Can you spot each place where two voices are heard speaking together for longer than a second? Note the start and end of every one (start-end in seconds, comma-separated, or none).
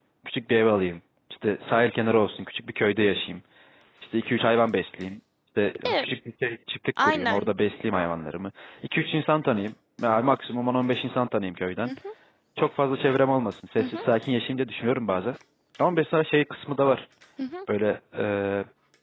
none